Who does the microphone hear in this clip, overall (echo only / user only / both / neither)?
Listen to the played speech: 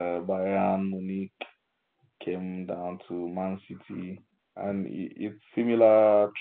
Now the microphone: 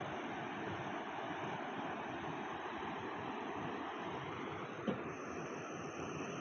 neither